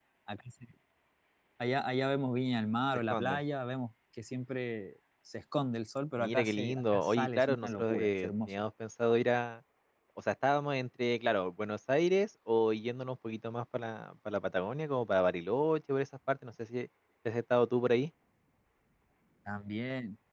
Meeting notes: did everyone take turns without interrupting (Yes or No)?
No